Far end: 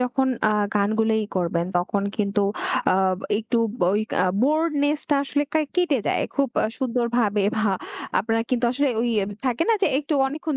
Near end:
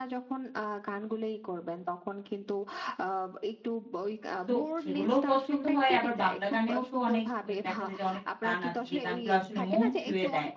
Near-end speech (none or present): present